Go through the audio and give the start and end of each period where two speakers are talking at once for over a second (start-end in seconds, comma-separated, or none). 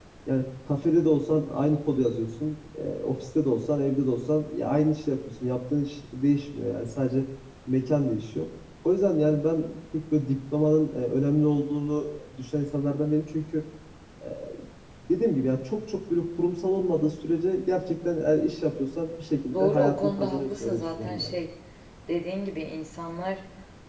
19.5-21.4